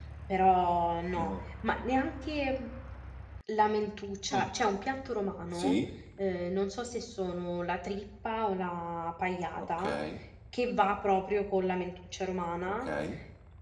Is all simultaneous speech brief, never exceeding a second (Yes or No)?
Yes